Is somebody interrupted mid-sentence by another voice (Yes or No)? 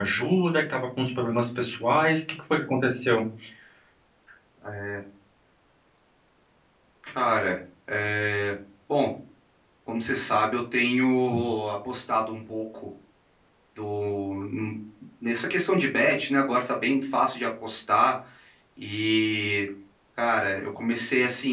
No